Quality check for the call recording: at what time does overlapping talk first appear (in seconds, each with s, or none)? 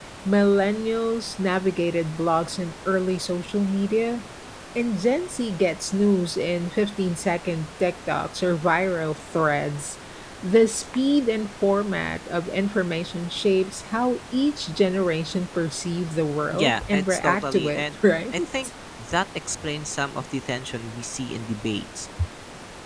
16.5 s